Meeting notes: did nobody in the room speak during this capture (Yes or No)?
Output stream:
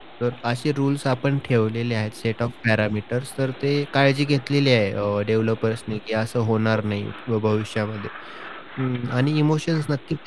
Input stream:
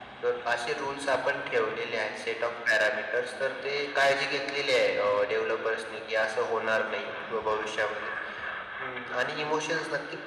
Yes